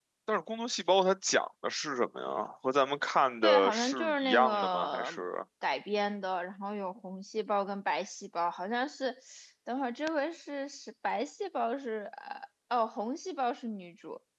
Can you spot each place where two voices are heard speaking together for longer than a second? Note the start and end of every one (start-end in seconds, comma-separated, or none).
3.4-5.2